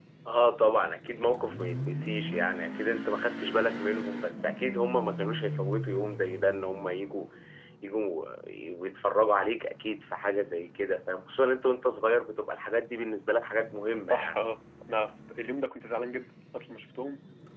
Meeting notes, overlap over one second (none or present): none